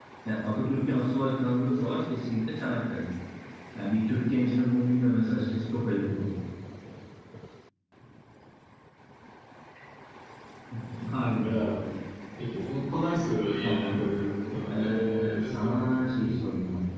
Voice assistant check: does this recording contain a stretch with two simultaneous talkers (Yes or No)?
Yes